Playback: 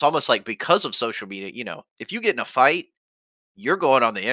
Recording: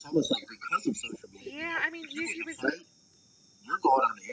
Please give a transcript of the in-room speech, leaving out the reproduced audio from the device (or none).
Yeah, I mean, YouTube is like